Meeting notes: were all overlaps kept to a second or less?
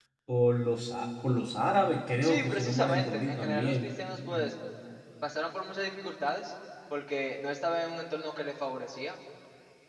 No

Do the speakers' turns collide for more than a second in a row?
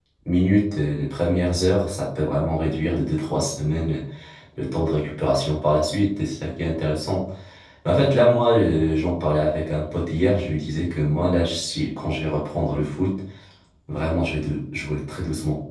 No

